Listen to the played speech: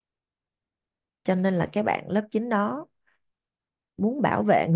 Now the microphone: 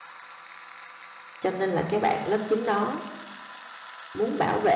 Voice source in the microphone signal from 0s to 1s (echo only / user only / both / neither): neither